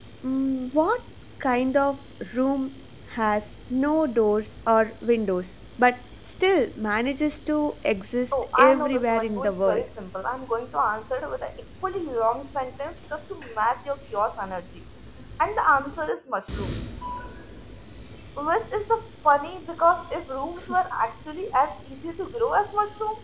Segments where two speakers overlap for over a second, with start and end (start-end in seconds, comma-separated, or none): 8.3-9.9